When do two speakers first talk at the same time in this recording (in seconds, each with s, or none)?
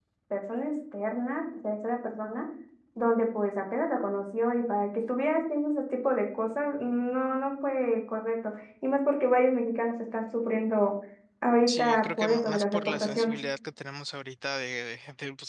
11.7 s